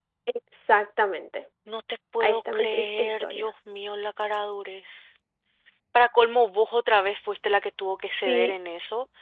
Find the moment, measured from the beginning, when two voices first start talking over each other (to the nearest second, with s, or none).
2 s